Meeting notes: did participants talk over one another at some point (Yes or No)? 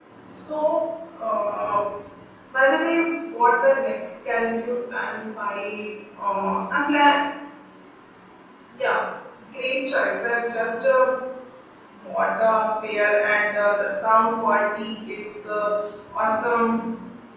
No